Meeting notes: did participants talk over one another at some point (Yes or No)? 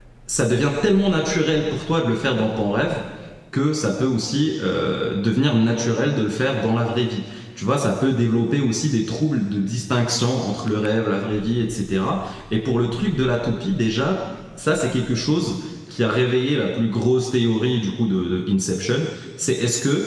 No